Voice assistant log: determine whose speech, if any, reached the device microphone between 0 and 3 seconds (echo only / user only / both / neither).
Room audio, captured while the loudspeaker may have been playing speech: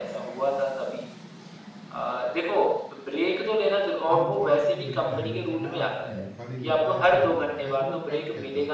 echo only